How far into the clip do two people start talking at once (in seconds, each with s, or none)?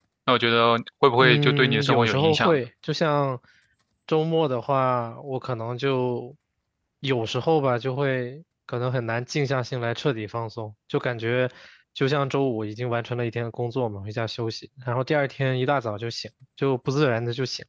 1.2 s